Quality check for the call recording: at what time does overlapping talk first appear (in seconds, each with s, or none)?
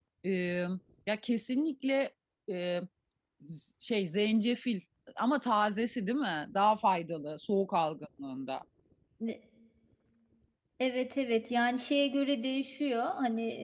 none